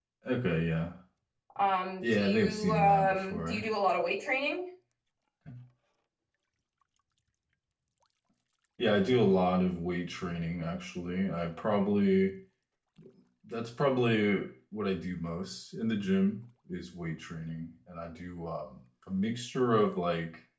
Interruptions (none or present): present